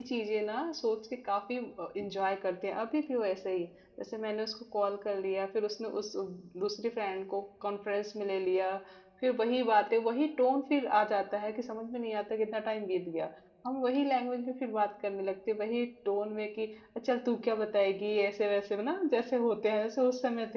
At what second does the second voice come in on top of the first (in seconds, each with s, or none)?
none